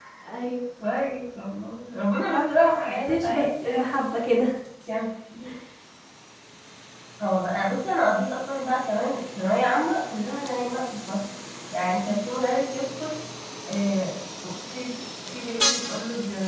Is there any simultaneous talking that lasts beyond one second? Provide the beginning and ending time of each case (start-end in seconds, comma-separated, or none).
2.3-3.8